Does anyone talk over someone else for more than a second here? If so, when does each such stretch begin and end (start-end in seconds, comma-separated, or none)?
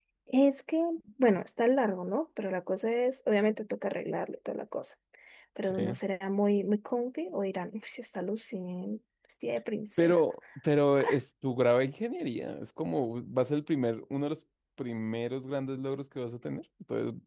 none